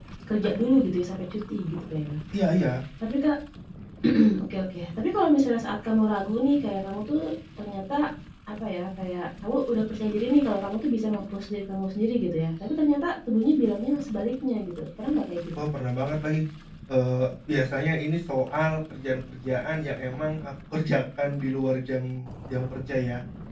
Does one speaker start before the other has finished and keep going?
No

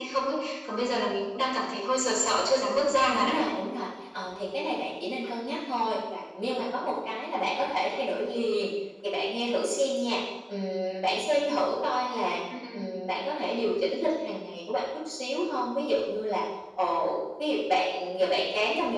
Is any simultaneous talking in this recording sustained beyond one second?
No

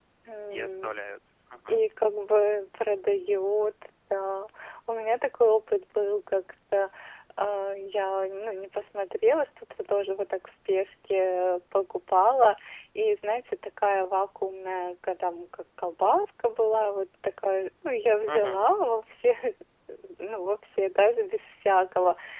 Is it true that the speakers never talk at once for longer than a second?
Yes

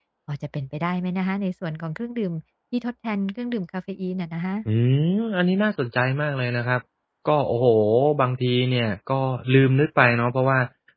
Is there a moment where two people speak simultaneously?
No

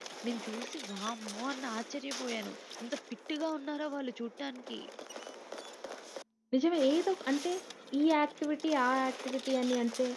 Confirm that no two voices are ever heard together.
Yes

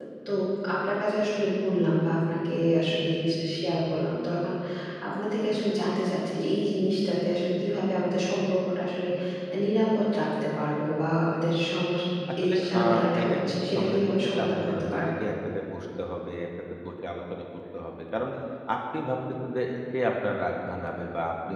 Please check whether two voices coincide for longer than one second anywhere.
Yes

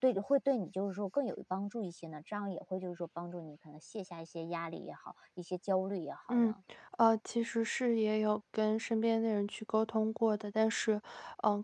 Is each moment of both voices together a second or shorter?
Yes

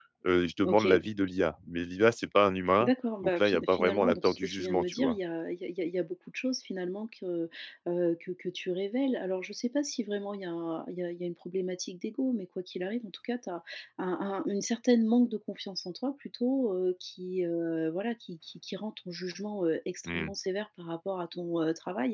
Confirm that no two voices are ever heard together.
No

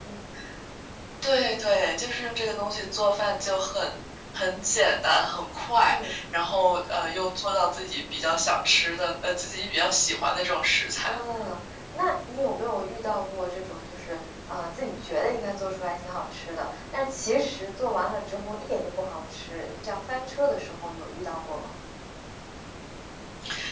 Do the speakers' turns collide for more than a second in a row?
No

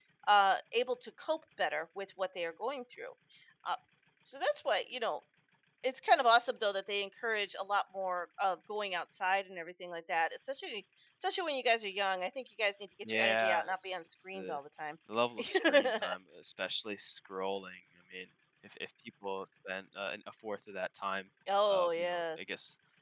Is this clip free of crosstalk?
No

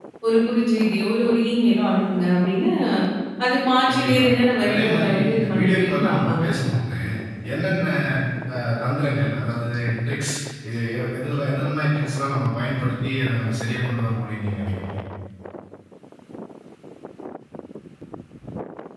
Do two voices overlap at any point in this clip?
Yes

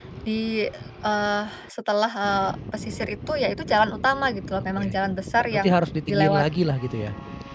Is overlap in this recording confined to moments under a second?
Yes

